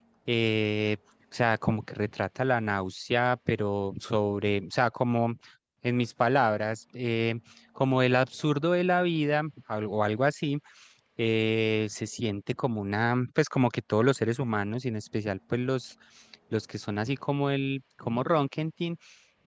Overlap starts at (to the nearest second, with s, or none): none